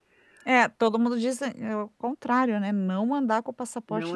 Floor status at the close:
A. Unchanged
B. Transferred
B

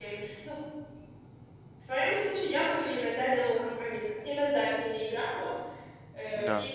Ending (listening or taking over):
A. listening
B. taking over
A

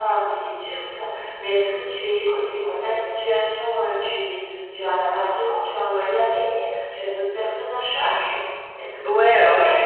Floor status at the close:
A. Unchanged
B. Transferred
B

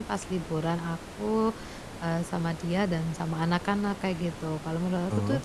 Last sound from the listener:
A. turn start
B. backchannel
B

